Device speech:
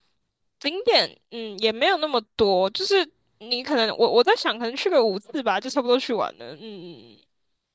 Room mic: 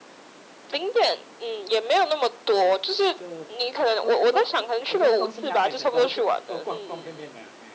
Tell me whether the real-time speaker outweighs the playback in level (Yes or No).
No